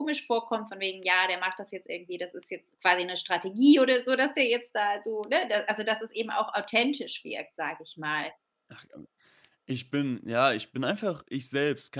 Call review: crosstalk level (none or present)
none